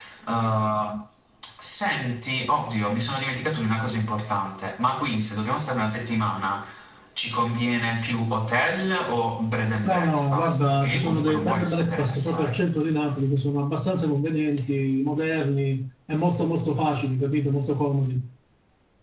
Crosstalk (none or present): present